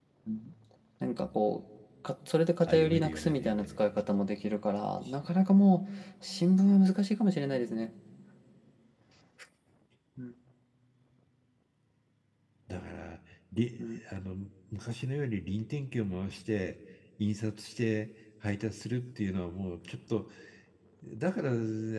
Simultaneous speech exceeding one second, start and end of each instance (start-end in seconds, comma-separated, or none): 2.7-4.0